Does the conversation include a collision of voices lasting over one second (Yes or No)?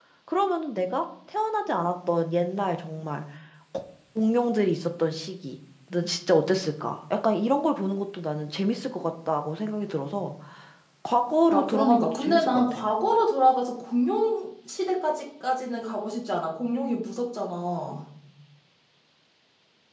Yes